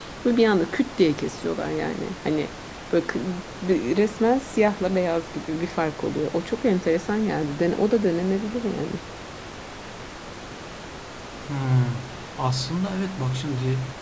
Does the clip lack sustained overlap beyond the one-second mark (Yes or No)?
Yes